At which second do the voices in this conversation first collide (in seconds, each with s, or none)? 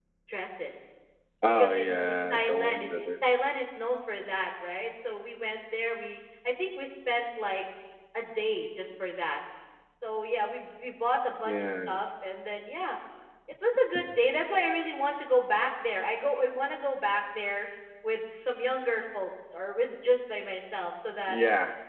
1.5 s